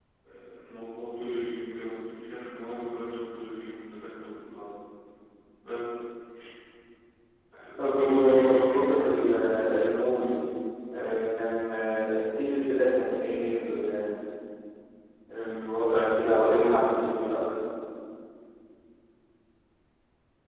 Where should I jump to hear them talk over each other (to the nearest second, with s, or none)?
8 s